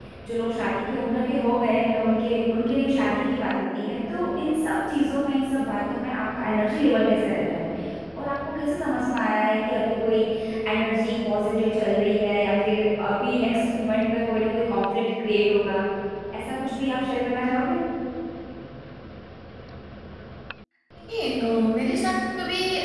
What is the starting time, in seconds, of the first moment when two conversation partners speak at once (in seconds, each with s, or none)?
none